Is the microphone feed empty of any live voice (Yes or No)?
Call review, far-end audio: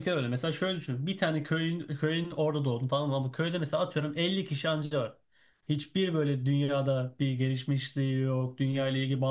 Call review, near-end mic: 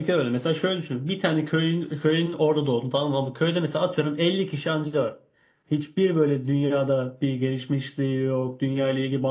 Yes